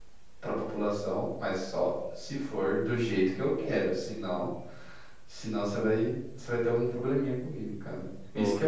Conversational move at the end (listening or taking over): listening